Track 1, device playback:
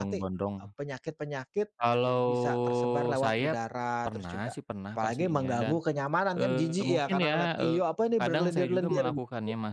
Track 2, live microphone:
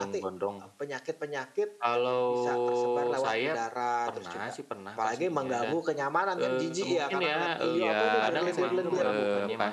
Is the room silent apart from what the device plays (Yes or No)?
No